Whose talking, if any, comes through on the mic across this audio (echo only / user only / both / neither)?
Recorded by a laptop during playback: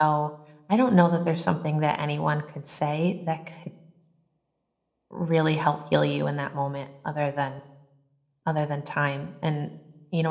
user only